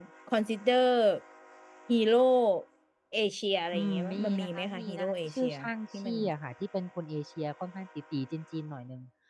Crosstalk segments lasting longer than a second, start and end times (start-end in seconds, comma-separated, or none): 3.7-5.5